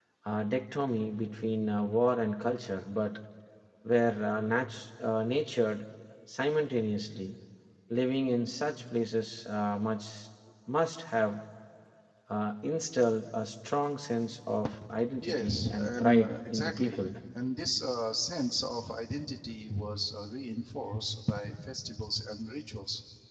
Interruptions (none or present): present